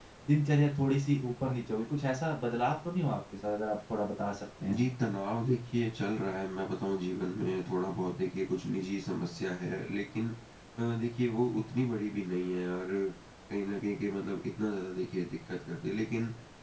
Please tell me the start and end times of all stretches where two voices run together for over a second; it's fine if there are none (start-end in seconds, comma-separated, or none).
none